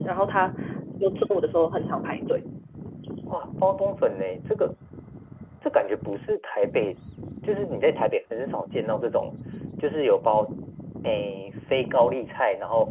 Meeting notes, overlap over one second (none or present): none